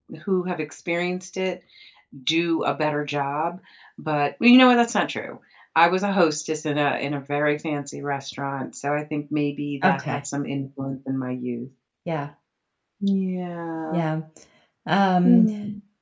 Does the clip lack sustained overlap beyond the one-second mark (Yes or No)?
Yes